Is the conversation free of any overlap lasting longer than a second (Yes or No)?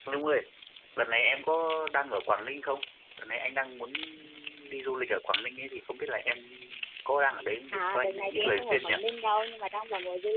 No